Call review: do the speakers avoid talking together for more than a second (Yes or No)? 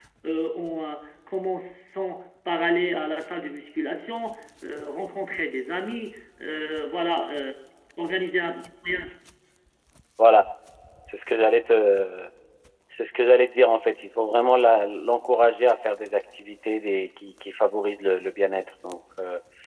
Yes